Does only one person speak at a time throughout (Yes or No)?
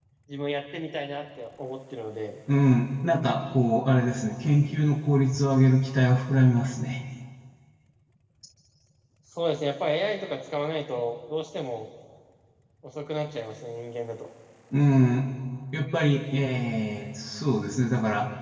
Yes